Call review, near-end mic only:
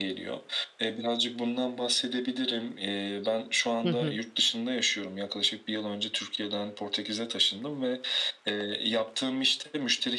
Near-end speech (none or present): present